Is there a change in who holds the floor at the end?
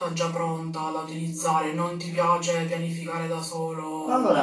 Yes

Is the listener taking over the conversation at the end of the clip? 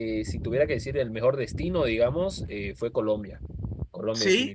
Yes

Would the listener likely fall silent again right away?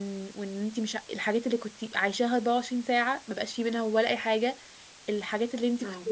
Yes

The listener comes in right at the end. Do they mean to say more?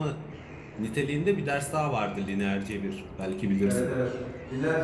Yes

